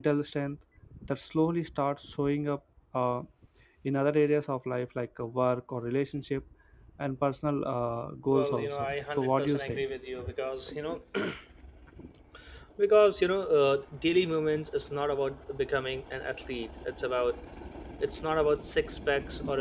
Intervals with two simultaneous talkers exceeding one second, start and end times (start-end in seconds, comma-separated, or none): 8.3-9.8